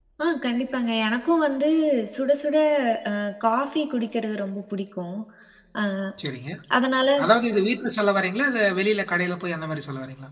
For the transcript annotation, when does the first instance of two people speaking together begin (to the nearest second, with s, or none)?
none